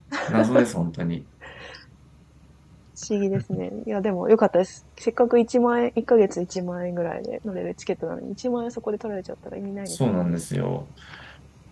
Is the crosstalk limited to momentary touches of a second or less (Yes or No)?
Yes